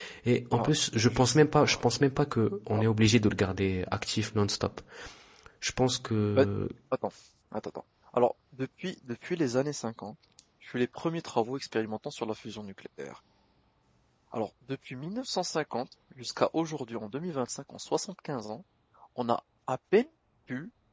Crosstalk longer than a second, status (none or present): present